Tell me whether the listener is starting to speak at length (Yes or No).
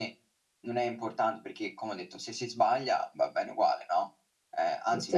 No